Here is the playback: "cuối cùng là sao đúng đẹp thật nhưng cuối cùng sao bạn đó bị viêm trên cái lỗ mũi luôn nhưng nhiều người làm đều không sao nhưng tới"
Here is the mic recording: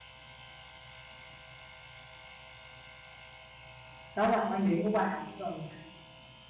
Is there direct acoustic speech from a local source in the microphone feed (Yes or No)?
Yes